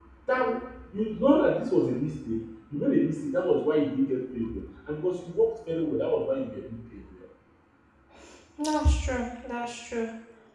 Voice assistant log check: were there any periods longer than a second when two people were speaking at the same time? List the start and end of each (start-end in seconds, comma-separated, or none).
none